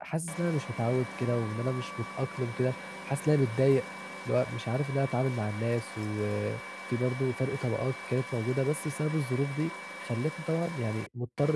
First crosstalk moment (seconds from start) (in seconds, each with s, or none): none